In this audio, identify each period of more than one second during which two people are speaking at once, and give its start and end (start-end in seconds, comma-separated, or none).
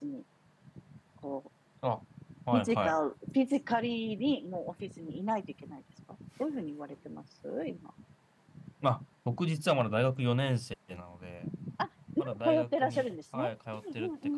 12.2-13.5